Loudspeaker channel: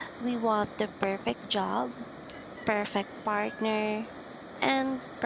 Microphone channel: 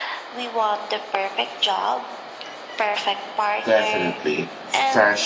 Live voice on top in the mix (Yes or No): Yes